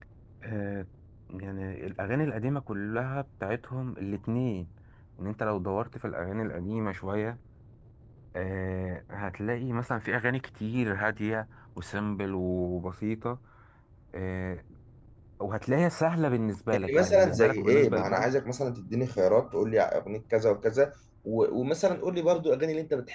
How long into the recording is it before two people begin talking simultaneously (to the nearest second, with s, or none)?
17 s